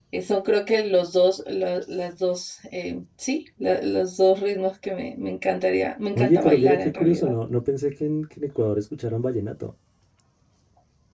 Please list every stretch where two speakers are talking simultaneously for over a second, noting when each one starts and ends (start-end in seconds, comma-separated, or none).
6.1-7.3